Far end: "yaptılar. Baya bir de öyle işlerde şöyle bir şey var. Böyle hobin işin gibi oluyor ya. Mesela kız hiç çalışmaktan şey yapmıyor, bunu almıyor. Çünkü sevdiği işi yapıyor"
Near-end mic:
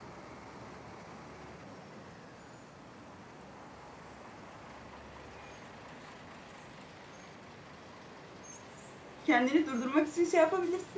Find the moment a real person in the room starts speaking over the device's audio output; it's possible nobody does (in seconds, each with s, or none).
9.2 s